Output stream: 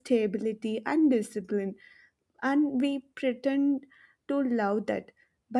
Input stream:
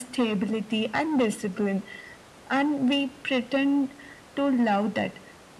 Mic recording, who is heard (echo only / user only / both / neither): echo only